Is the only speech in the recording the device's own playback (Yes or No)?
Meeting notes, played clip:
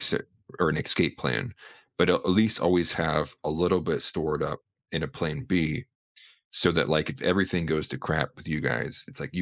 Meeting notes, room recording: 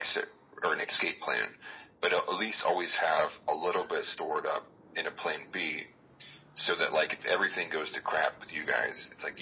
Yes